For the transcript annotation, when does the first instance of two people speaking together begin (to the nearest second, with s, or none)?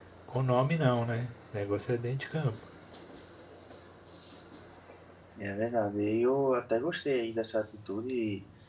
none